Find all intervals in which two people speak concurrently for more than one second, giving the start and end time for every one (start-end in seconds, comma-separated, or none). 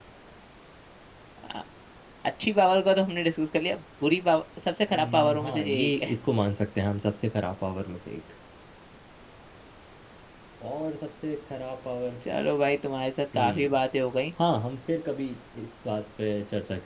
4.9-6.1